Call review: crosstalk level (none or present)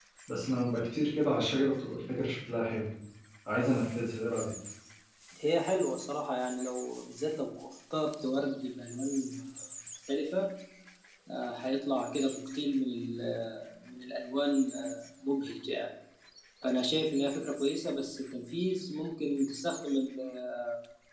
none